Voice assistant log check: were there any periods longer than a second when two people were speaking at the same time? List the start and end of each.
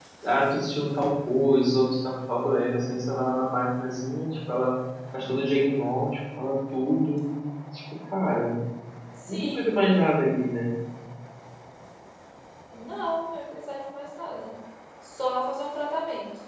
none

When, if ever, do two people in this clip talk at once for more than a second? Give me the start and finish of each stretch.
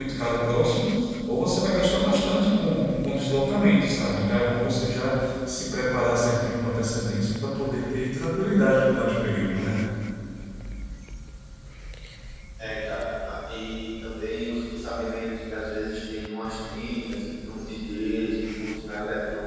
none

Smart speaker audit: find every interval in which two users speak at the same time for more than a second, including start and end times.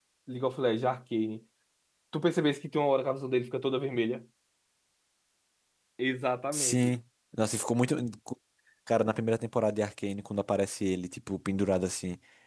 none

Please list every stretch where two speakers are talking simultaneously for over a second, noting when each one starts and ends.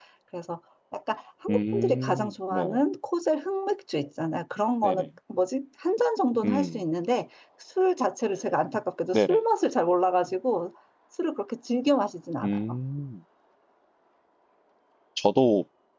1.5-2.8

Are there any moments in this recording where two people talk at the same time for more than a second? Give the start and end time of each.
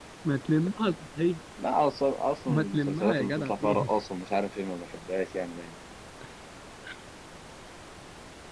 2.5-3.9

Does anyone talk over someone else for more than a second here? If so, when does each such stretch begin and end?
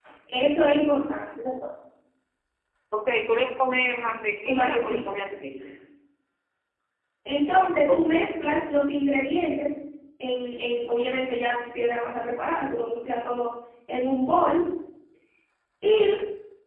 4.5-5.7

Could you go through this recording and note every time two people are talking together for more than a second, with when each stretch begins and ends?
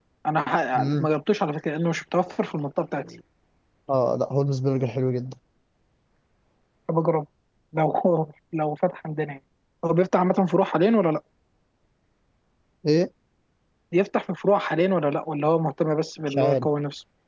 none

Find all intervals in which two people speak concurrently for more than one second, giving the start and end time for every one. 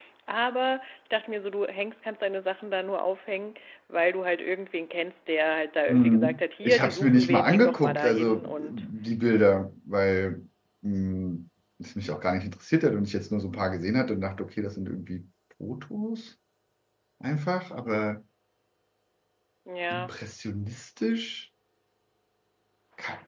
5.9-8.8

